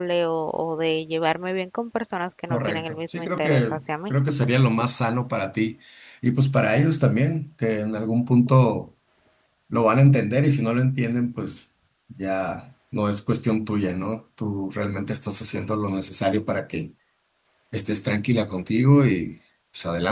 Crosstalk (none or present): present